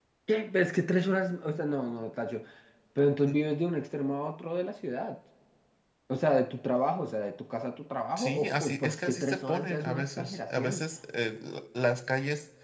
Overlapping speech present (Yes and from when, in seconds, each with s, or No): Yes, from 8.2 s